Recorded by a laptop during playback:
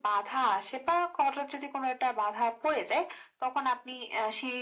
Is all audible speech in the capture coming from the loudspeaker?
Yes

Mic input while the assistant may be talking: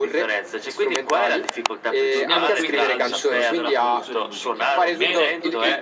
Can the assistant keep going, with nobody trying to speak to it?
No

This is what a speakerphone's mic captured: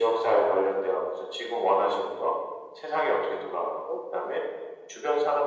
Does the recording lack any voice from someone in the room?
Yes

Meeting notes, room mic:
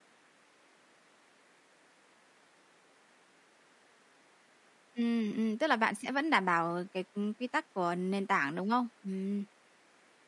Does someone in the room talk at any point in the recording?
Yes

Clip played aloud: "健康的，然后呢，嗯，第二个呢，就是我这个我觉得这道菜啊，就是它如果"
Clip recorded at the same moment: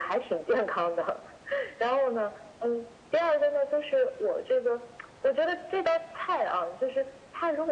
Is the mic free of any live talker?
Yes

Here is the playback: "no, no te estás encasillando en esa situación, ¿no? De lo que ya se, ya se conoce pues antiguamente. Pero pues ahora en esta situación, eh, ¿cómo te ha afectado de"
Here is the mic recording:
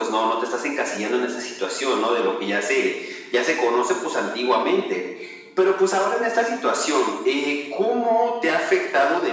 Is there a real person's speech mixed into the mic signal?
No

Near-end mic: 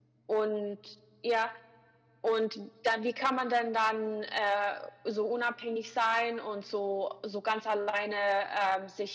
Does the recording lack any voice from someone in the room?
Yes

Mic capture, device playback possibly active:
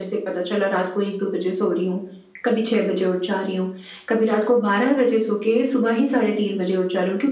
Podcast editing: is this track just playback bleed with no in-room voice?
Yes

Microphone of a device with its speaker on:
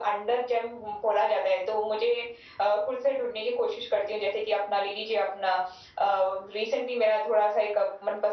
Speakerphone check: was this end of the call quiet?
Yes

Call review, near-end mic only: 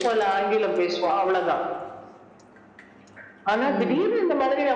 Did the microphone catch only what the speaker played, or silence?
No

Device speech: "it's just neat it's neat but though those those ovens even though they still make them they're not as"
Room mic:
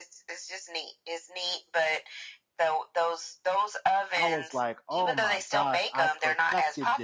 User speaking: Yes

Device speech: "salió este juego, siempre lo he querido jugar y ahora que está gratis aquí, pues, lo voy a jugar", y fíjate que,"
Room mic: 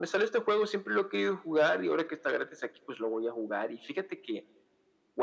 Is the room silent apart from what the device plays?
Yes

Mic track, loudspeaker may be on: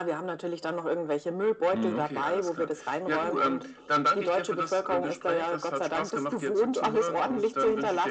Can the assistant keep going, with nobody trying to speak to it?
No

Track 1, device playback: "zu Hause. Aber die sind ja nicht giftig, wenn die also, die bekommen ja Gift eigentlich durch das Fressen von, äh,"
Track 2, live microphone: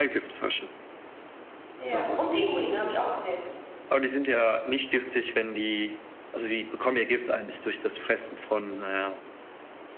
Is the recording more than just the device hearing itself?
Yes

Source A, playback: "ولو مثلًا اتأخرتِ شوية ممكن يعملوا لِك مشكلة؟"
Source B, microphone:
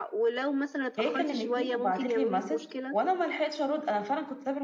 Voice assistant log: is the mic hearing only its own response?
No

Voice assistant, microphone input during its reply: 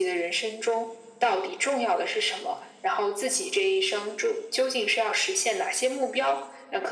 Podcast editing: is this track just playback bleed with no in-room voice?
Yes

